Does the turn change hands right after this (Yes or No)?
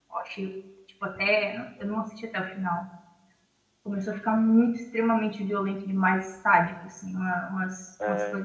No